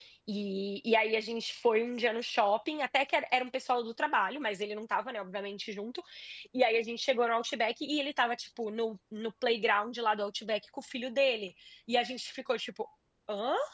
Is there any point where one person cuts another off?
No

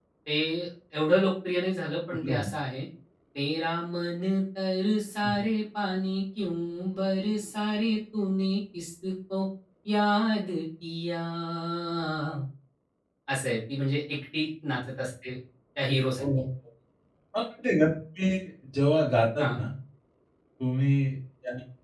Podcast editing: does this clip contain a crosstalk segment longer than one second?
No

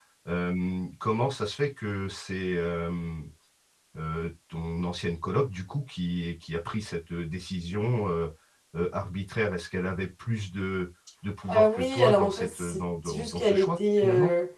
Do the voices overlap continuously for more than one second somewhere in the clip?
Yes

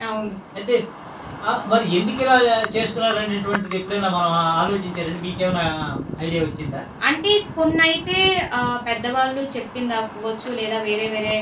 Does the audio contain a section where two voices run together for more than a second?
No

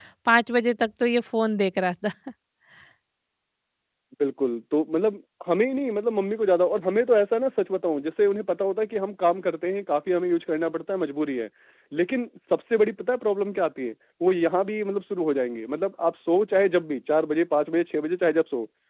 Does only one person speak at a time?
Yes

